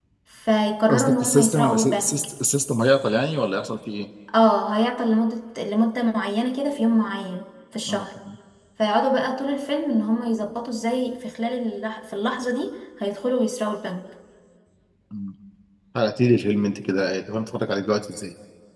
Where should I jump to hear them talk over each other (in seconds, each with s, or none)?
0.9 s